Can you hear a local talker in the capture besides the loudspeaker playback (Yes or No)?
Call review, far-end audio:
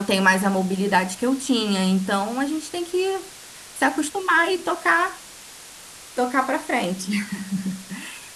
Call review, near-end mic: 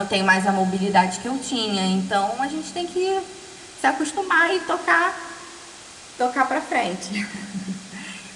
No